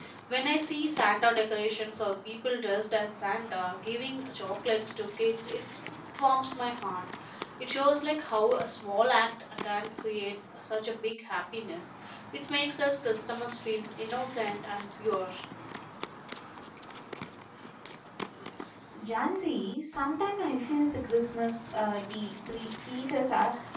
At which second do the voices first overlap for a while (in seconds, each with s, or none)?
none